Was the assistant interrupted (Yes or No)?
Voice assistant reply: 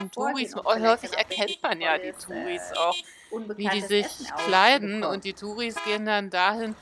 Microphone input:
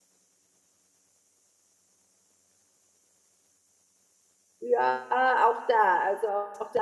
Yes